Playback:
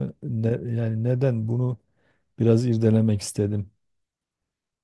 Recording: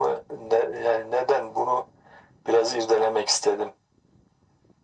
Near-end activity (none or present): none